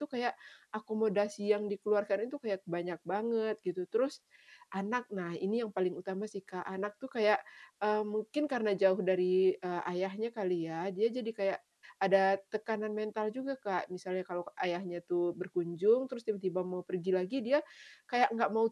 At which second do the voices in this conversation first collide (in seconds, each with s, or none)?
none